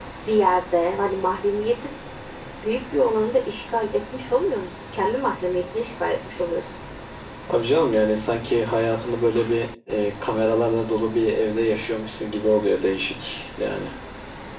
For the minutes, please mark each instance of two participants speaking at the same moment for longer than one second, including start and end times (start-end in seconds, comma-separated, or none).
none